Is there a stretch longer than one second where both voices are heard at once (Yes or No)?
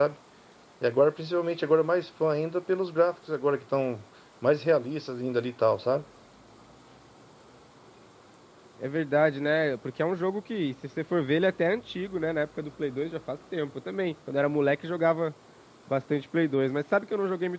No